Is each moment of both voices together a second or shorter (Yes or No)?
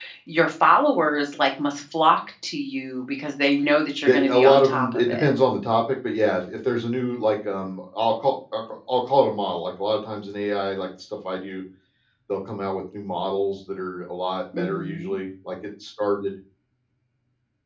No